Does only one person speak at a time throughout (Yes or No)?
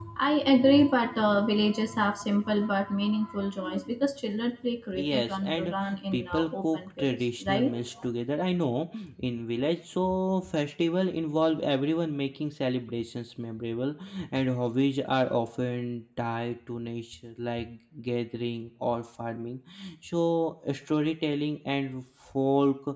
No